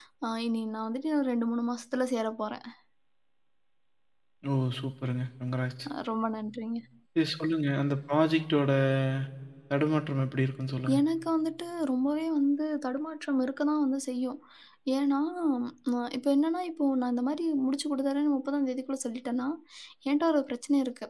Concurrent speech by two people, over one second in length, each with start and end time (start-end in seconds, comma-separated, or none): none